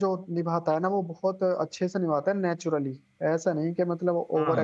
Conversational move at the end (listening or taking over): taking over